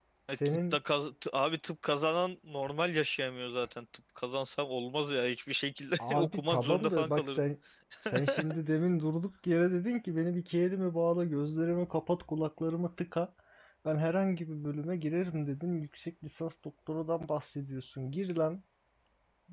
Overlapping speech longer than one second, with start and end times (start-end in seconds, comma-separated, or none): 6.0-7.4